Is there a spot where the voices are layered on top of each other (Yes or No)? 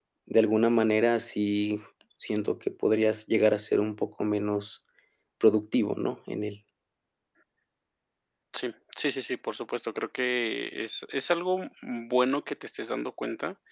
No